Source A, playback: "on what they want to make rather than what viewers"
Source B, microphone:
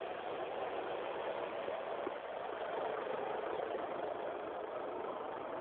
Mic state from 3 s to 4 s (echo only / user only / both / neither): neither